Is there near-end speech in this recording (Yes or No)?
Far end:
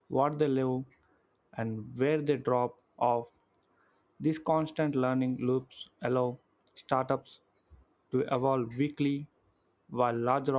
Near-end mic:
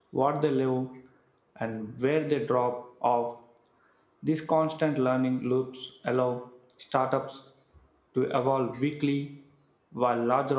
No